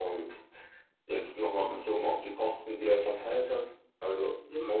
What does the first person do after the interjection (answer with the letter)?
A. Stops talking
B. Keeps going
B